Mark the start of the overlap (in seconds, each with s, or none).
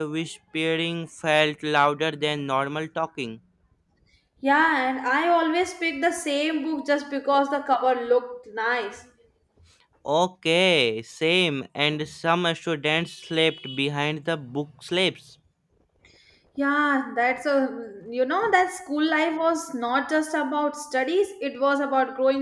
none